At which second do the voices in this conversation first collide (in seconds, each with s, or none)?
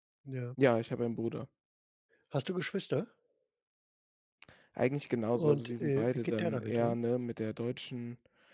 5.3 s